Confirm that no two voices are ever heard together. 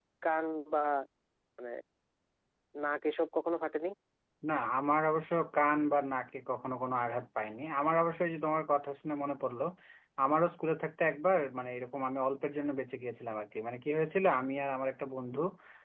Yes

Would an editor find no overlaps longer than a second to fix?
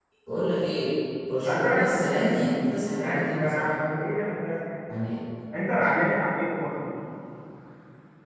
No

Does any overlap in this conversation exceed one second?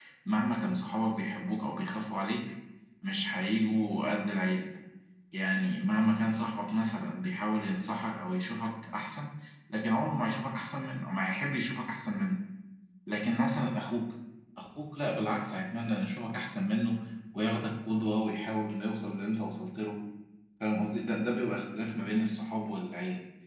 No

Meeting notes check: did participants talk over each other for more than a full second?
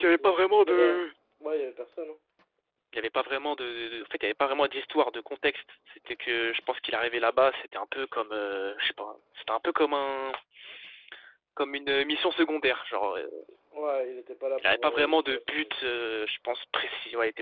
Yes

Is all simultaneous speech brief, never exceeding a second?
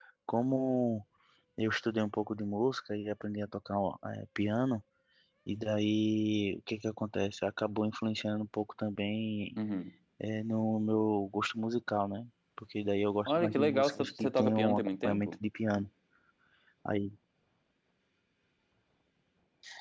No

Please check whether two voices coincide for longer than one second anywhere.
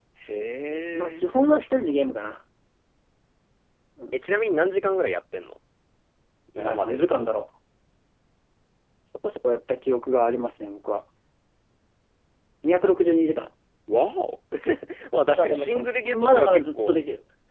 Yes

